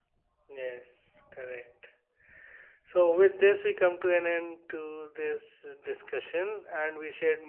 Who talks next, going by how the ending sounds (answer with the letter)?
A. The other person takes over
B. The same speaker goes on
B